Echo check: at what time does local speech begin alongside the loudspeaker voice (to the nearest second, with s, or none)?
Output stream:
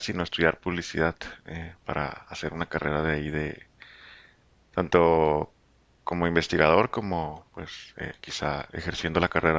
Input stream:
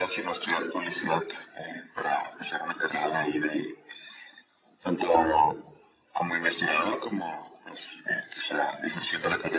none